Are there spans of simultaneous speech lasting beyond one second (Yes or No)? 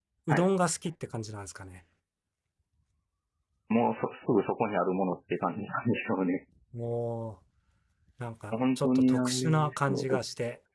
Yes